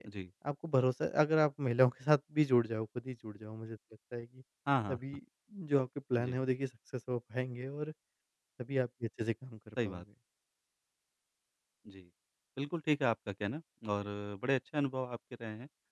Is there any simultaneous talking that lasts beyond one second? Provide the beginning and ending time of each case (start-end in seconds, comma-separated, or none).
none